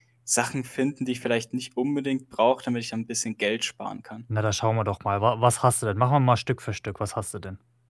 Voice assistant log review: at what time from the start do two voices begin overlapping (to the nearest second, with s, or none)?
none